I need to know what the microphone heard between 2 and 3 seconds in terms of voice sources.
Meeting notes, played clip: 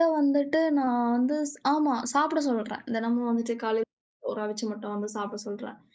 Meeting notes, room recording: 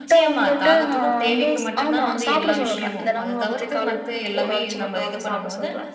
both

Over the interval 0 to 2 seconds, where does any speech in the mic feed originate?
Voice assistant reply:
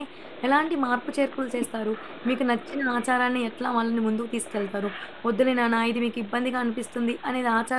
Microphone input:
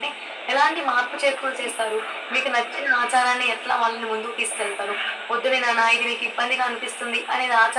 echo only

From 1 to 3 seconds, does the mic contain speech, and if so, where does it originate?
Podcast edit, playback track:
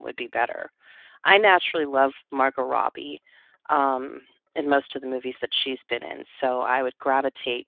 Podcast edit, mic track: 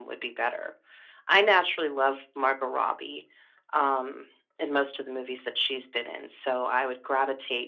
echo only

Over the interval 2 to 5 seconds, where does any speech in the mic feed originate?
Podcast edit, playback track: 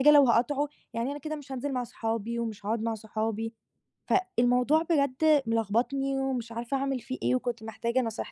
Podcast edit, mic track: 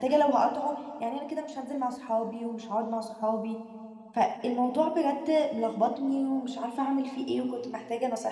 echo only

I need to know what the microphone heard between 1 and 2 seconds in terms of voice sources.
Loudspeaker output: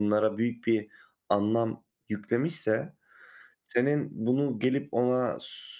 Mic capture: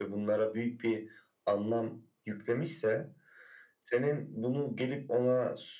echo only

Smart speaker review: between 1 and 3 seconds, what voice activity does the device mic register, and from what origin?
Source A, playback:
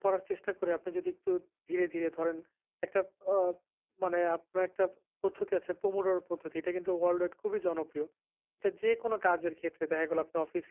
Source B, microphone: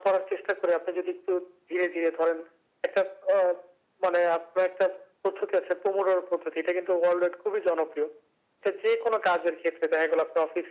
echo only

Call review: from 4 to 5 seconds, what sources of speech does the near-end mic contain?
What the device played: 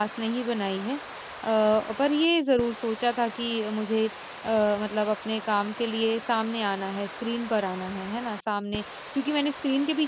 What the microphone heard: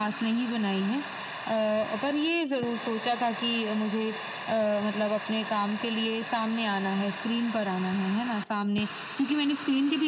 echo only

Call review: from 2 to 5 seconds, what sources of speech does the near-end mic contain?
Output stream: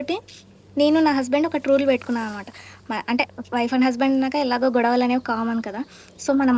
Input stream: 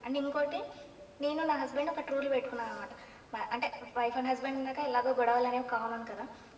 echo only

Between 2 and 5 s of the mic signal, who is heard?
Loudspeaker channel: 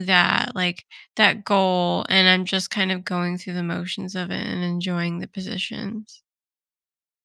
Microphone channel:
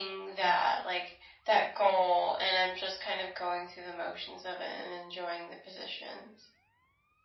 echo only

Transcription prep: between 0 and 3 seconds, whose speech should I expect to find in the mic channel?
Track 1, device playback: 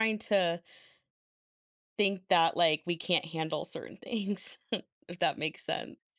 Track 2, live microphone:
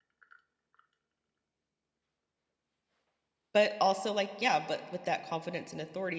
neither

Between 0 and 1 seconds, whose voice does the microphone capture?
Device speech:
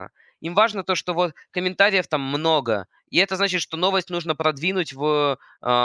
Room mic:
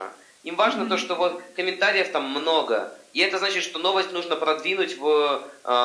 both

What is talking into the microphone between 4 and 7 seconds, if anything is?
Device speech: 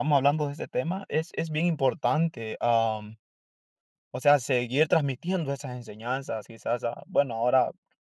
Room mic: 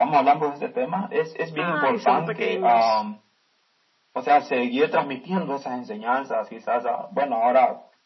echo only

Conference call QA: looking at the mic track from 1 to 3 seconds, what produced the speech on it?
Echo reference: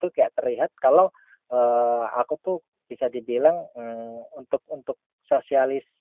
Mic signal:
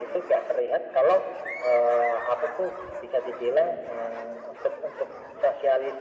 echo only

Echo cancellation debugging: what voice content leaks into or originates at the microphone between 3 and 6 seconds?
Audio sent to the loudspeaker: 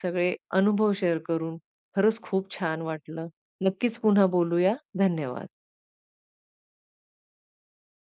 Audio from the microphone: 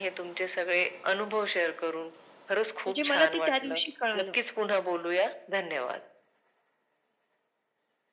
both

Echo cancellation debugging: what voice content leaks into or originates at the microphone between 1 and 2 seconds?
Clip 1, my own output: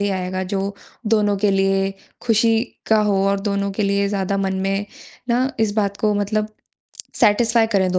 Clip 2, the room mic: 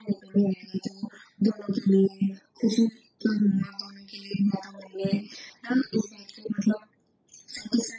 echo only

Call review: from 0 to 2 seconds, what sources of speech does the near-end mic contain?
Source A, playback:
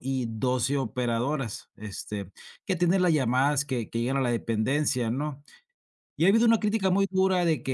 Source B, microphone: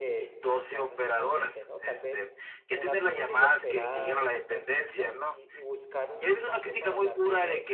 both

